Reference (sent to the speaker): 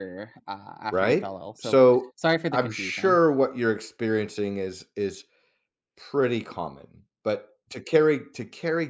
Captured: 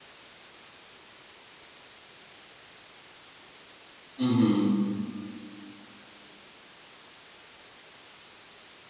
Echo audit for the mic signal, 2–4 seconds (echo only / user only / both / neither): neither